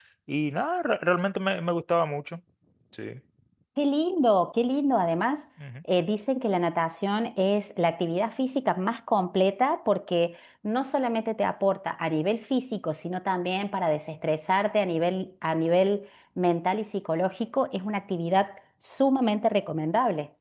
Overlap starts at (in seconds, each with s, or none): none